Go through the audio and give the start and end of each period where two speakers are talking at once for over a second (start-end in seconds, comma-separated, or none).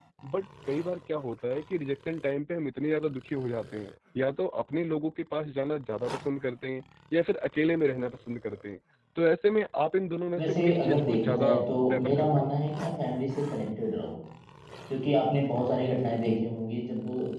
10.3-12.5